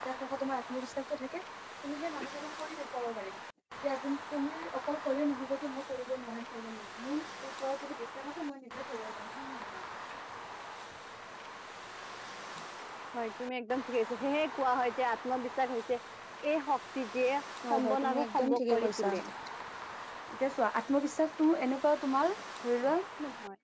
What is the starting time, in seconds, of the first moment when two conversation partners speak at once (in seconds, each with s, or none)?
17.6 s